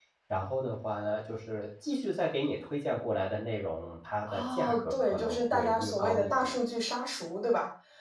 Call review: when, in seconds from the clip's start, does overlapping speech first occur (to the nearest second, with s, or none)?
4 s